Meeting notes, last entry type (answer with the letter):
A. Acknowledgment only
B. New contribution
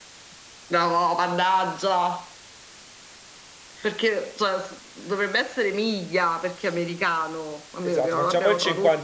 B